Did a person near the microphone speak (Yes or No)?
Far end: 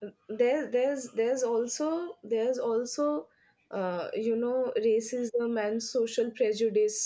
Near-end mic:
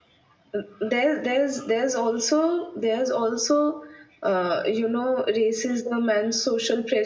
No